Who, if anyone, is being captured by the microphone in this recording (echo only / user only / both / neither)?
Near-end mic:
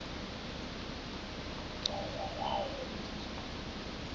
neither